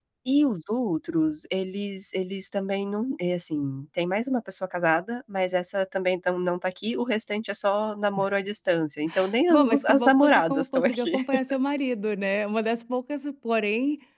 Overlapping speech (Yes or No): Yes